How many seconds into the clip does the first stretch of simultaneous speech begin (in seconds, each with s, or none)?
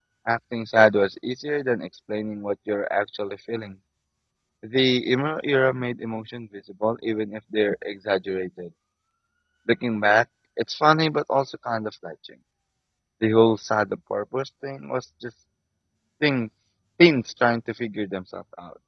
none